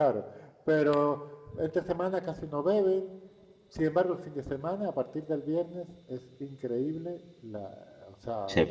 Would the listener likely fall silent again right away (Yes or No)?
No